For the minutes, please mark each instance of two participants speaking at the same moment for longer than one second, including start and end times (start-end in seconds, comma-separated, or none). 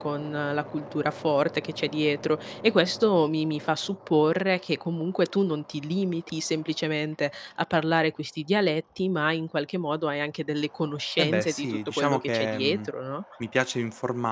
11.2-12.9